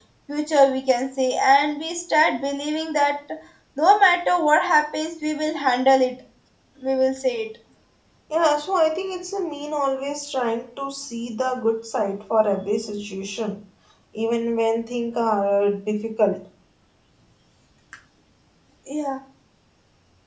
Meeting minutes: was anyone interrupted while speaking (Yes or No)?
No